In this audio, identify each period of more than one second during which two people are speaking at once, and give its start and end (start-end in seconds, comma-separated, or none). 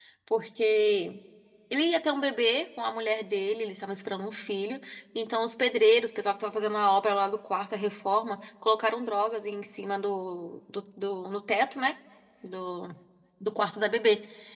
none